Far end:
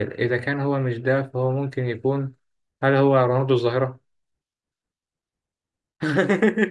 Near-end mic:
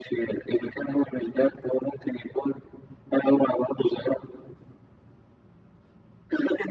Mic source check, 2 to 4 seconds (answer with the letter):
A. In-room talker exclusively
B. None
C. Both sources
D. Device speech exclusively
D